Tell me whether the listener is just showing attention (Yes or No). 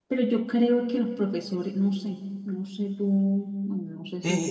No